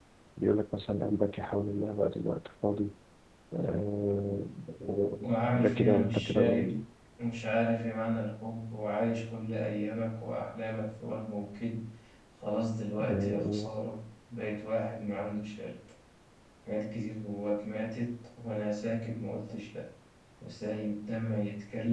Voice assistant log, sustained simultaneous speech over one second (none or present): present